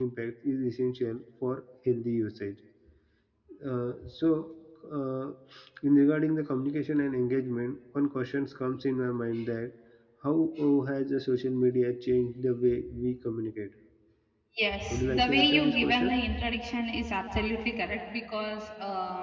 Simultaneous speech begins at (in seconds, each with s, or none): 14.9 s